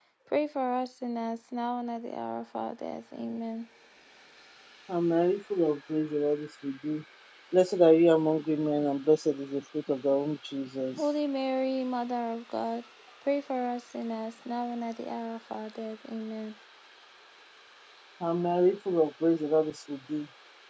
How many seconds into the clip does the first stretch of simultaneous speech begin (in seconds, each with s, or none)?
none